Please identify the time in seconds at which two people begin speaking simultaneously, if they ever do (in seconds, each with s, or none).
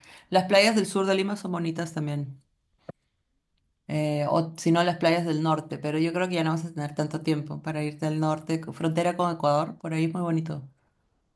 none